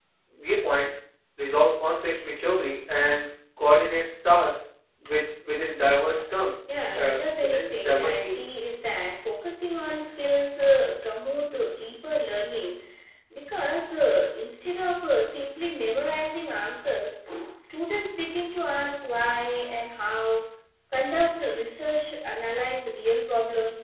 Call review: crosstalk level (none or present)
present